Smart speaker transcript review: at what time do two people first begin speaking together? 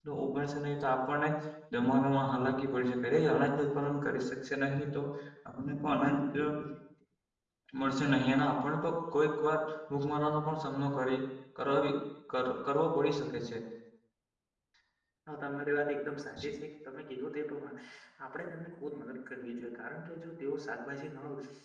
none

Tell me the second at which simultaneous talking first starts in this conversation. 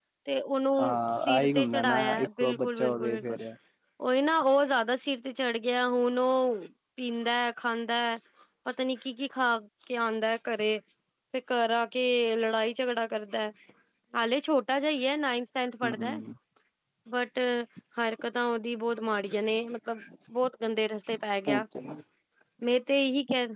1 s

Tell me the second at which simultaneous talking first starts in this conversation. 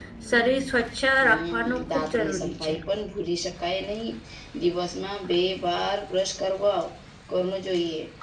1 s

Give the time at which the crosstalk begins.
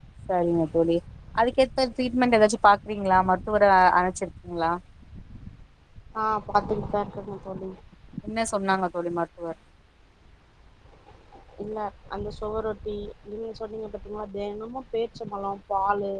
none

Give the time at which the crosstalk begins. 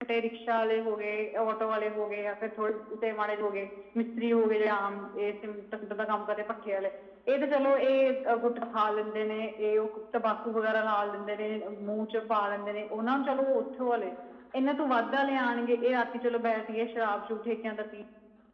none

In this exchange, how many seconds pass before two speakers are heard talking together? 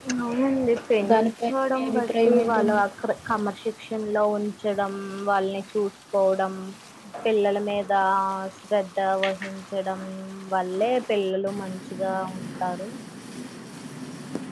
1 s

